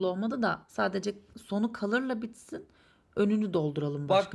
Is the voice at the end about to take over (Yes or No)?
Yes